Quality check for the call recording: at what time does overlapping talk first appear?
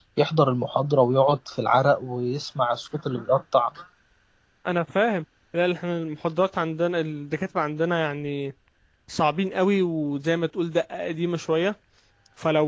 none

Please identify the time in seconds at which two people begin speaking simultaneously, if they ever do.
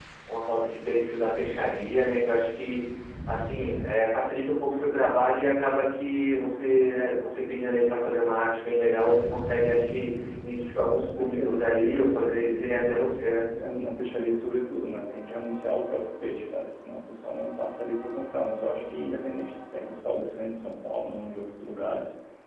11.2 s

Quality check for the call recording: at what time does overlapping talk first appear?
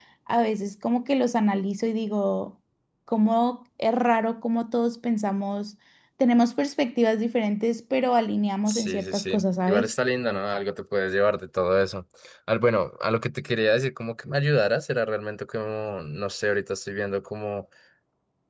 8.7 s

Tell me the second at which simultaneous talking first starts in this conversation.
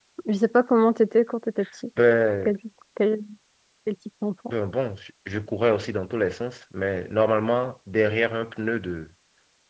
none

